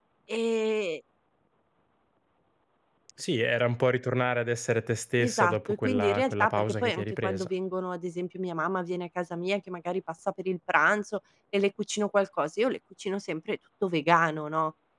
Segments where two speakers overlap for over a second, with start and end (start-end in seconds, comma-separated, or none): 5.2-7.5